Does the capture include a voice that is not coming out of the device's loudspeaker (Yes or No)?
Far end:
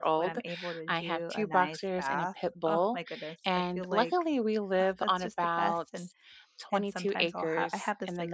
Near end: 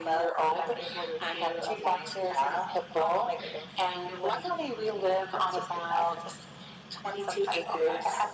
No